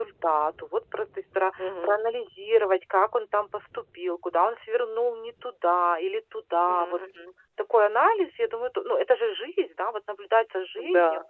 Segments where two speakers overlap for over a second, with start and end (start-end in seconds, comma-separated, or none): none